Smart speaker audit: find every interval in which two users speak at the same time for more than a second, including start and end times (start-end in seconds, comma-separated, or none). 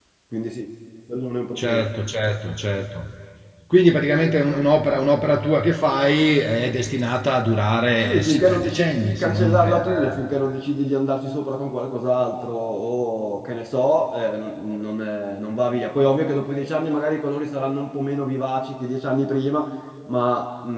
8.0-10.2